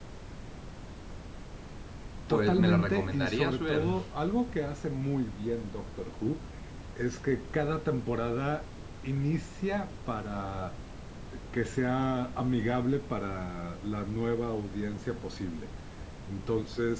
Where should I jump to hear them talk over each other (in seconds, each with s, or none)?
2.3 s